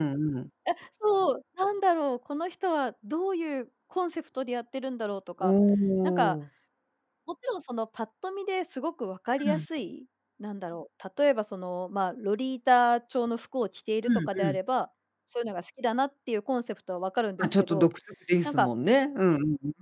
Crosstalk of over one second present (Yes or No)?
No